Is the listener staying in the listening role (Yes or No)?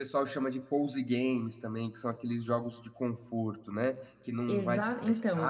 No